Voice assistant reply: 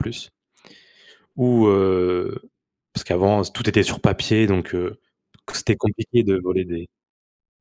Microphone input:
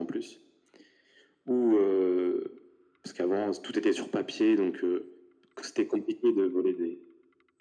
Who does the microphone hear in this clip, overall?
echo only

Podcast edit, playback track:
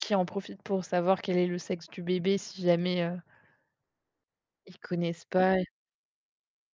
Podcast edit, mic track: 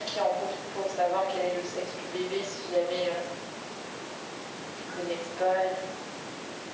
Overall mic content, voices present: echo only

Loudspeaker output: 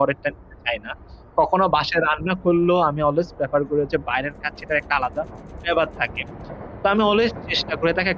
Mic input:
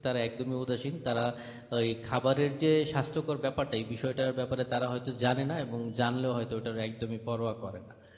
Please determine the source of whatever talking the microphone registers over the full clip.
user only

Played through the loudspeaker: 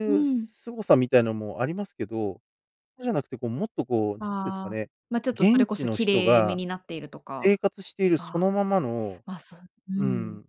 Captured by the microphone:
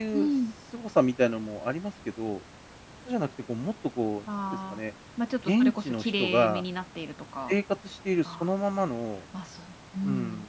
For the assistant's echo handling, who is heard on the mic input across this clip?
echo only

